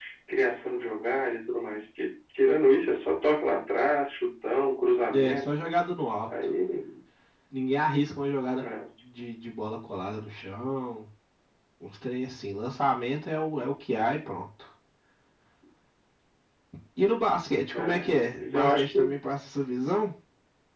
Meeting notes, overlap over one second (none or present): present